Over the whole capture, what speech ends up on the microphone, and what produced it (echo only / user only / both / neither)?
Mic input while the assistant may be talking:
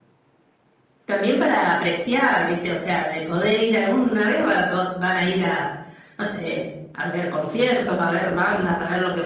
echo only